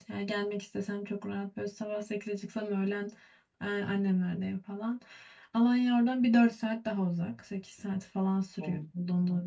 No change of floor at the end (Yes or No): Yes